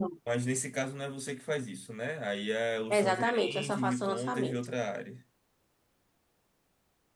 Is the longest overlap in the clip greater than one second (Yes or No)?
Yes